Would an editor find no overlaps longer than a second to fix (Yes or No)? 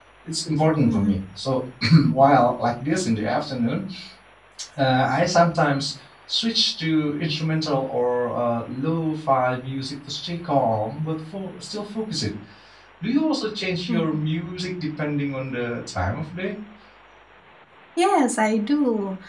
Yes